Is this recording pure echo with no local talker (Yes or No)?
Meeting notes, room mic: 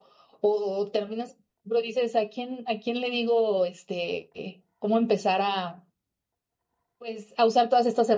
No